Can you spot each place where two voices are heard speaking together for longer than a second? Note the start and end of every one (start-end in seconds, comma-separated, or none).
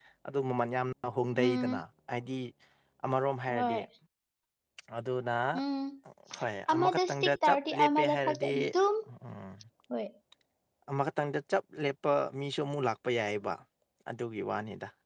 6.7-8.5